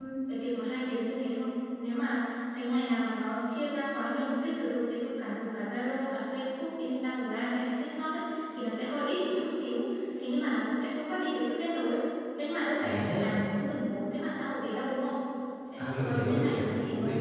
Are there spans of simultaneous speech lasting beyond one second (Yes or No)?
Yes